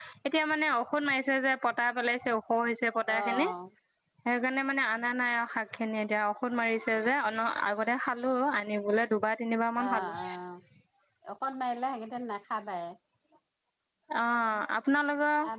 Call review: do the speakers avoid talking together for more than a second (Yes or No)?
Yes